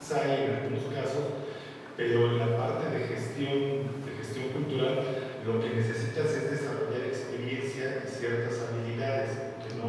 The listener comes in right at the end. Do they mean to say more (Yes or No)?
Yes